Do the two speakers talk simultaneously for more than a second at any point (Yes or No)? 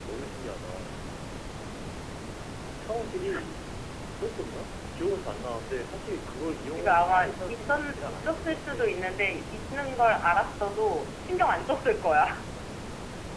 Yes